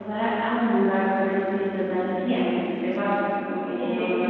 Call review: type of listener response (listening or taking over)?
taking over